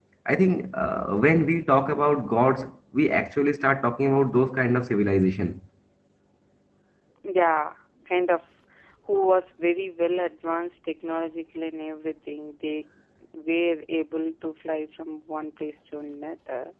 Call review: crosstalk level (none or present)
none